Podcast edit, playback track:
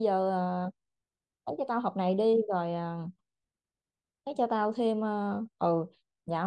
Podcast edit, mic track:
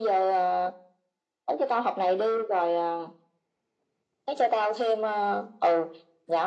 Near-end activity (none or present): none